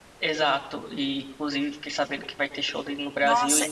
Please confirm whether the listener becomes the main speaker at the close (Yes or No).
Yes